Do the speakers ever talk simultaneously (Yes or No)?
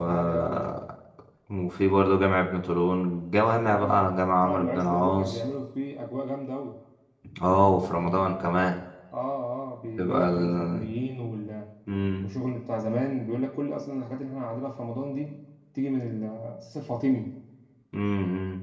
Yes